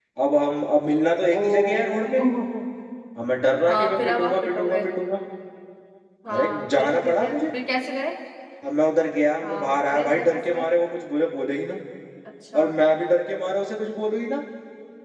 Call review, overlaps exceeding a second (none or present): present